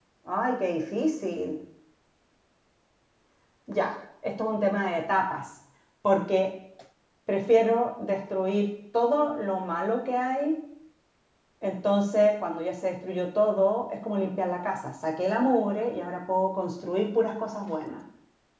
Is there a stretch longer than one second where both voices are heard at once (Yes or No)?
No